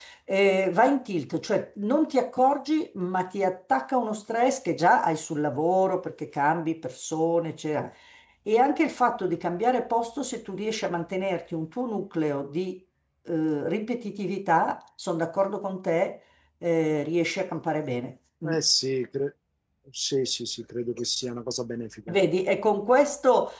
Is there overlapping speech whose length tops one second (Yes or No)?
No